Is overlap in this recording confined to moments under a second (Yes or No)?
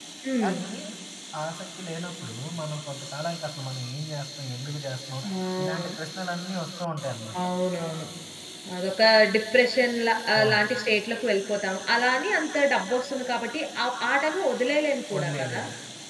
Yes